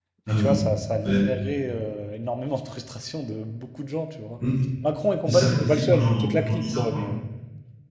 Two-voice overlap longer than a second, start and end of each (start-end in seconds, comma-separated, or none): 5.3-7.1